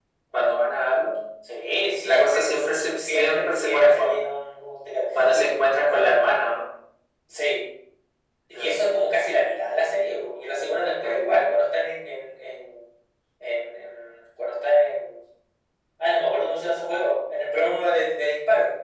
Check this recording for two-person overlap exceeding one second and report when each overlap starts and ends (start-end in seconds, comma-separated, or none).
2.0-4.2